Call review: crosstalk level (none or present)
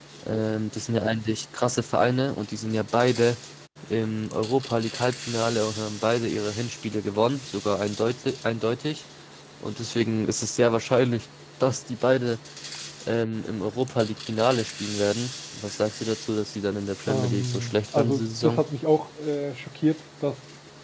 present